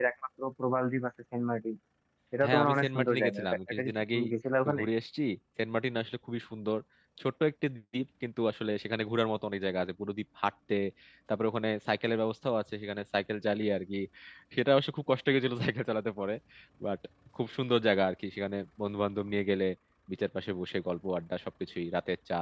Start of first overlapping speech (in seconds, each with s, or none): 2.4 s